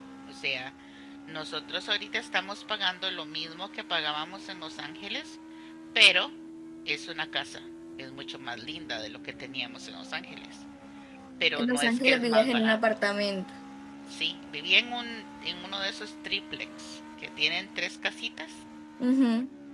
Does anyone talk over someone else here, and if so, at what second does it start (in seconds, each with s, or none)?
11.5 s